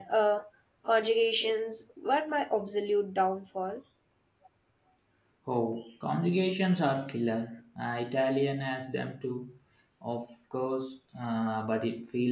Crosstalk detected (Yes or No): No